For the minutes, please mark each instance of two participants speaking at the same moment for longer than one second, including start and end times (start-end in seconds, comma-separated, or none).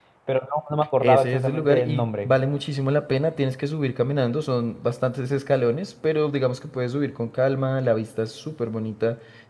1.0-2.3